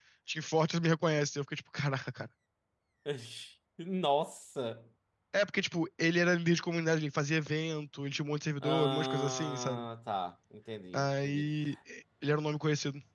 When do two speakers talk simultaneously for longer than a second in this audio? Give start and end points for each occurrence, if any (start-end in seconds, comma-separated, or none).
8.6-9.8